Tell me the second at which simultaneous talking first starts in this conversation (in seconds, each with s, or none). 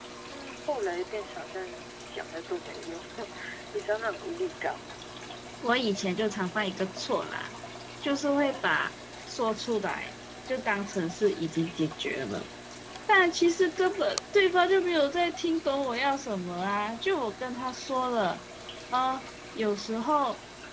none